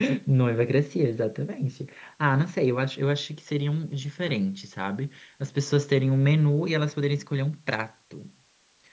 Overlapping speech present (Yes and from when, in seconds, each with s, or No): No